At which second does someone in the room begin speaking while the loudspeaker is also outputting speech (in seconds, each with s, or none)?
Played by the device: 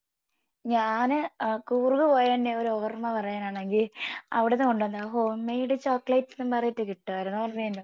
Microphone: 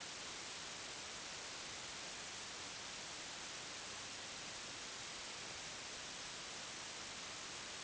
none